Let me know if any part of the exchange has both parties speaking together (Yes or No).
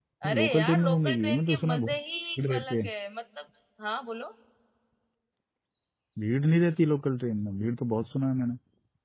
Yes